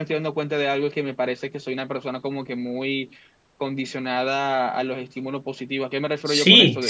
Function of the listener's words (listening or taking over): taking over